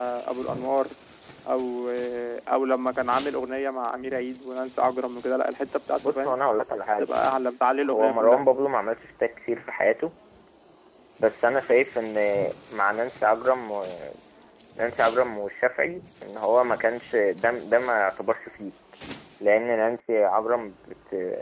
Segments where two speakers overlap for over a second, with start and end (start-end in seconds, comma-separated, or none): none